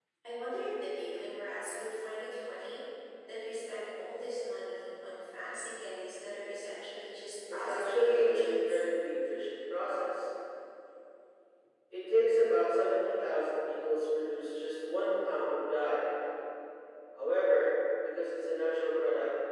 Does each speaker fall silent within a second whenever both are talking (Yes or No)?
No